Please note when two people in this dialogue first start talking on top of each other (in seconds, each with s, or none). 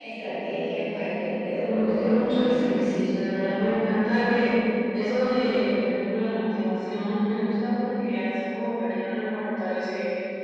1.6 s